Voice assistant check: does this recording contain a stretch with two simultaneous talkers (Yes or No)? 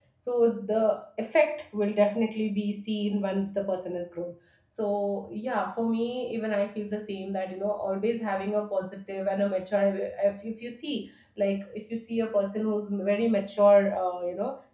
No